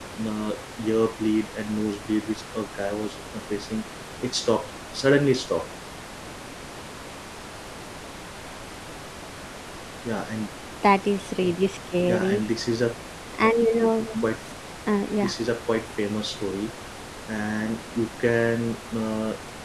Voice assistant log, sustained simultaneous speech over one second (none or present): none